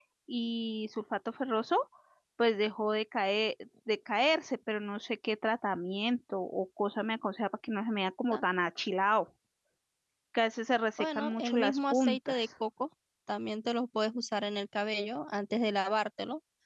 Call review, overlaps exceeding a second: present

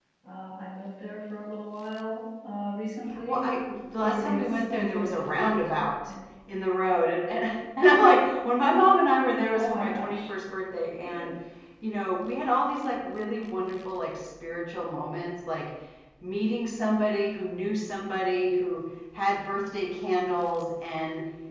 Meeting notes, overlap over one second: present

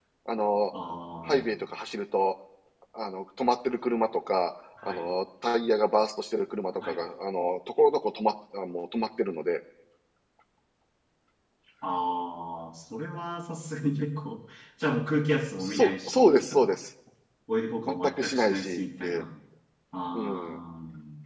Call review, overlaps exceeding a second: present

